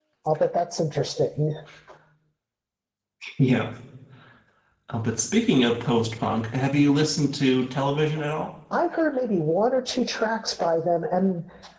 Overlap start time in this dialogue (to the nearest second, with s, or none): none